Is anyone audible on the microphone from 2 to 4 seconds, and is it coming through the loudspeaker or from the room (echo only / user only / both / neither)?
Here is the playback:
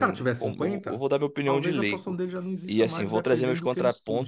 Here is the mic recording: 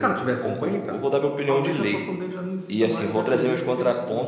echo only